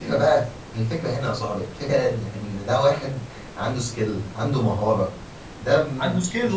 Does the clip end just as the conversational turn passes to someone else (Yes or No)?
Yes